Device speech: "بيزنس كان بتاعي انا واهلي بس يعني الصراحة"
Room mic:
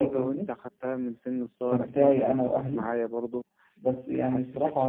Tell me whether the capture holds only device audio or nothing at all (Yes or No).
No